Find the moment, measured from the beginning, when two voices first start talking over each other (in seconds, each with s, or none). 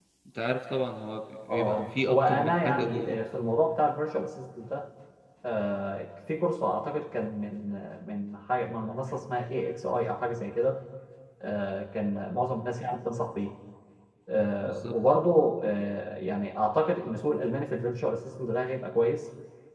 1.5 s